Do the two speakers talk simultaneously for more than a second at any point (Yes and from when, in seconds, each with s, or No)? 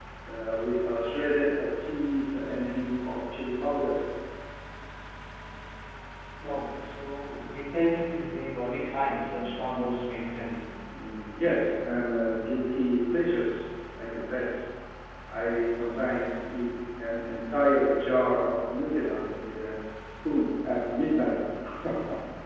No